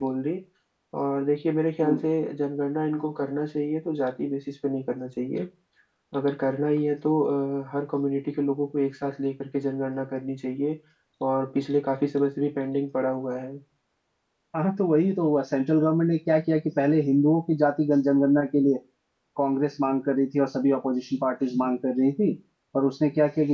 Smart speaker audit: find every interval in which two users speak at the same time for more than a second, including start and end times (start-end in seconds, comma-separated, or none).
none